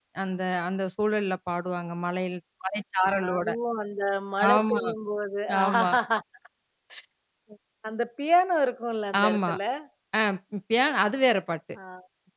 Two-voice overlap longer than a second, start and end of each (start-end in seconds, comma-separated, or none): none